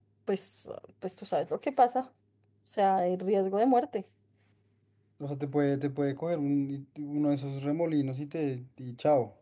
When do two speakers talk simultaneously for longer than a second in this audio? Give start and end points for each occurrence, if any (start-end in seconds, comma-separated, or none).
none